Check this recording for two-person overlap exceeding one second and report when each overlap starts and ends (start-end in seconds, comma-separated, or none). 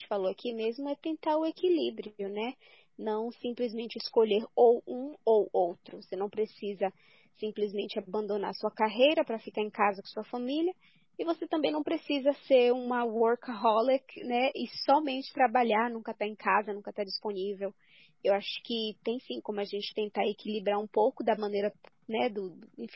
none